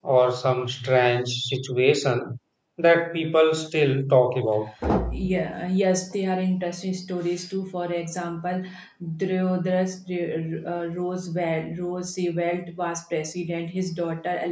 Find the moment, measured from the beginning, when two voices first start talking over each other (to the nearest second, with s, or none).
none